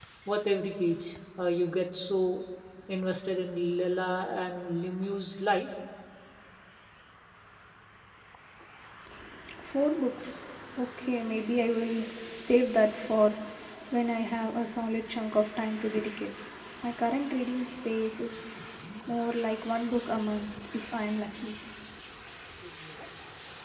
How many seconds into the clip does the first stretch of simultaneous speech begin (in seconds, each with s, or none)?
none